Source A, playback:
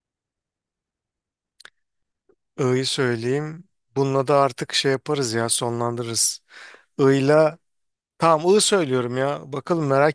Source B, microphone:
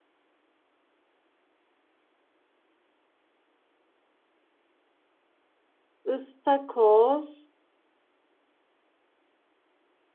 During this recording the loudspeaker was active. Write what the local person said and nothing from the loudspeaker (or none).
ıstakoz.